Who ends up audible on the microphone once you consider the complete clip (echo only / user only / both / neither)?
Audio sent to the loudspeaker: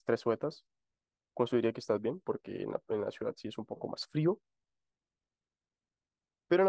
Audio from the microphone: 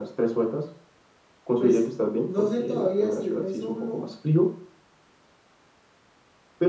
both